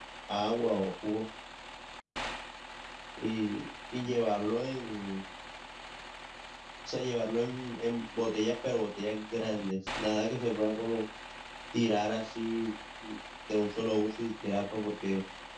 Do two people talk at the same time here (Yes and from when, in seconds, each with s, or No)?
No